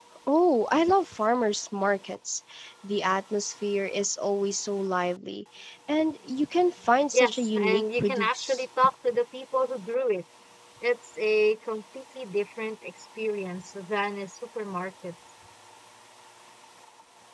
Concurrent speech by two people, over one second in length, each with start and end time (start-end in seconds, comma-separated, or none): 7.1-8.7